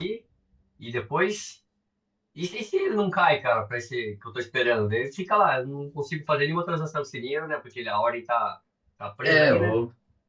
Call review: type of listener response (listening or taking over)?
taking over